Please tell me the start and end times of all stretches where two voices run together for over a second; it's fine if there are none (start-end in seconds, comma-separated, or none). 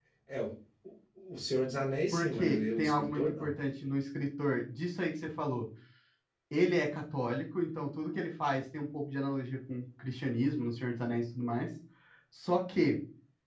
2.1-3.5